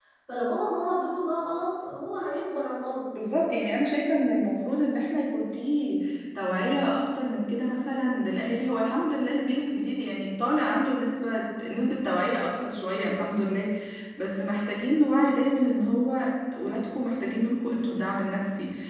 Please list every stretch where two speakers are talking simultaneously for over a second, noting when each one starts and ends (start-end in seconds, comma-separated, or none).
none